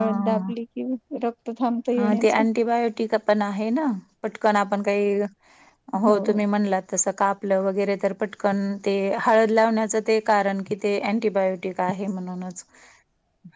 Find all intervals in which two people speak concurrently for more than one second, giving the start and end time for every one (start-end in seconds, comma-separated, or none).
none